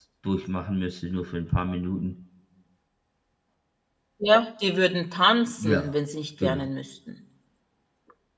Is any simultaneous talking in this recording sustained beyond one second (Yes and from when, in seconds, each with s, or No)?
No